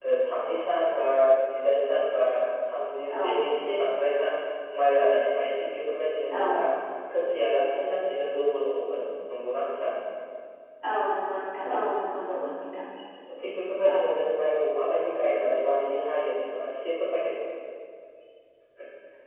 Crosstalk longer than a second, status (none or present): none